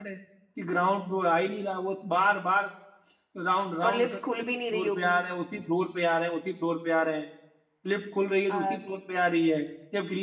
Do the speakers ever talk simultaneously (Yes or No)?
Yes